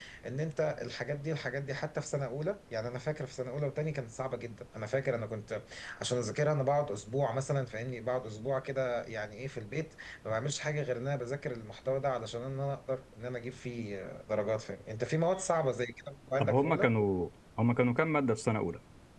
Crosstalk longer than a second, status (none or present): none